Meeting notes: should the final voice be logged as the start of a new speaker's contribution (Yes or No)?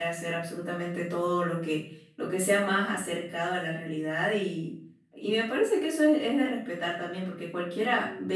No